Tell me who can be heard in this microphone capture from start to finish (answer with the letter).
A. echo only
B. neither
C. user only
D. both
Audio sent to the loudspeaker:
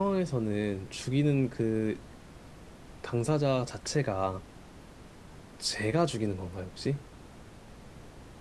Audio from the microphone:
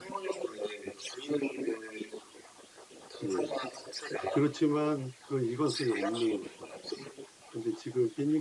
D